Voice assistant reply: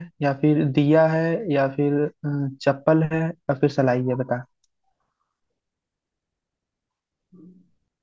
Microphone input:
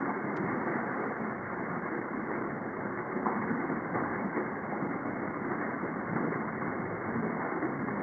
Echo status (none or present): none